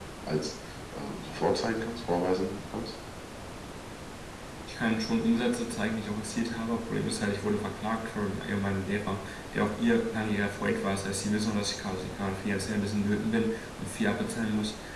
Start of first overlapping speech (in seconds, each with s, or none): none